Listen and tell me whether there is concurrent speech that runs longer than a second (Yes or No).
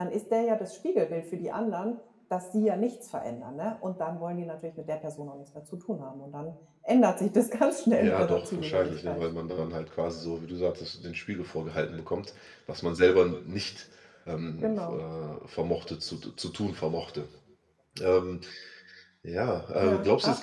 Yes